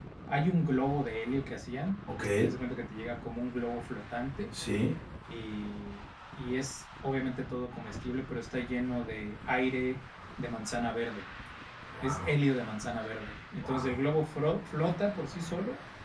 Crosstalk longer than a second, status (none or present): none